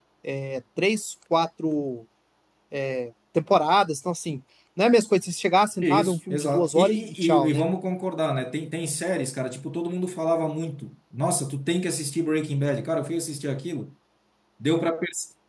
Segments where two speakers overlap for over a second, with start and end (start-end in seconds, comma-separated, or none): 5.8-7.7